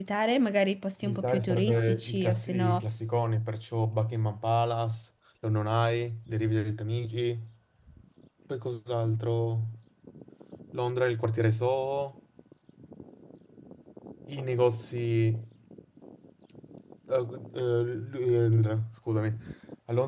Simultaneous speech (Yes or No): Yes